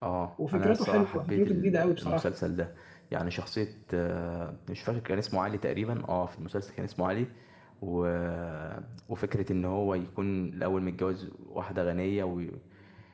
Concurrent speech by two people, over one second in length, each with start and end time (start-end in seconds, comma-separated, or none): 0.5-2.3